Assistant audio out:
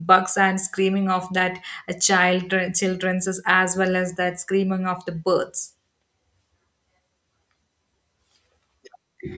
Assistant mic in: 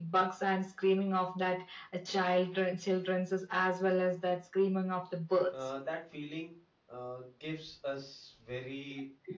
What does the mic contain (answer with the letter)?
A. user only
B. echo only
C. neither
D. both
D